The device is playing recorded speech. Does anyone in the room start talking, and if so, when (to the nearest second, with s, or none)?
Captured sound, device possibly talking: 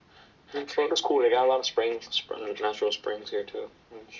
none